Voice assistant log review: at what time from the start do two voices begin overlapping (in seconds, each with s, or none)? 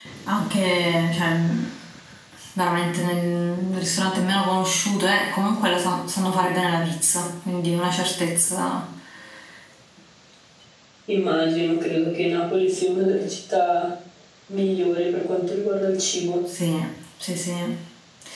none